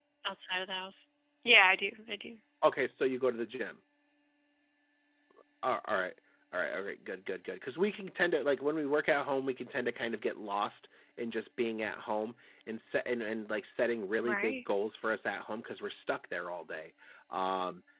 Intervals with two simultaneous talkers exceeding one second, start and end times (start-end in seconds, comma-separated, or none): none